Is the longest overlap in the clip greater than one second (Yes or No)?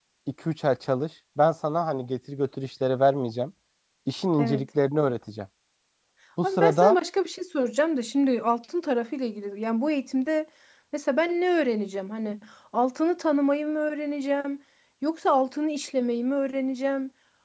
No